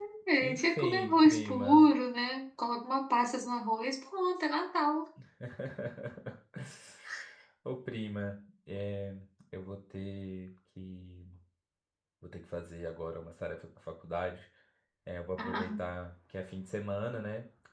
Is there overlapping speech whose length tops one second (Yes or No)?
Yes